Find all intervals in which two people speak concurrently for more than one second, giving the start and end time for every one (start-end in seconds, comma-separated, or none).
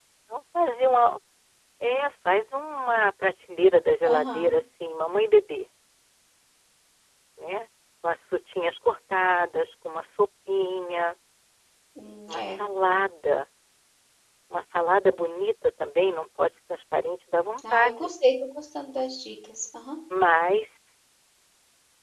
none